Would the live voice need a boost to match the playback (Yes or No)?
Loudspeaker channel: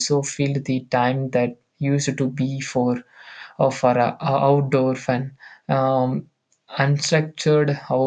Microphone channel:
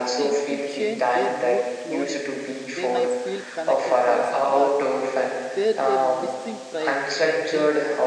Yes